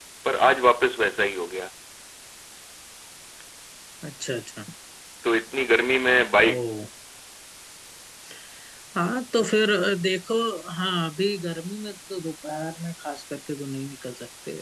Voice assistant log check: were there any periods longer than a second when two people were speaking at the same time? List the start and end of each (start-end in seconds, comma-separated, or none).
none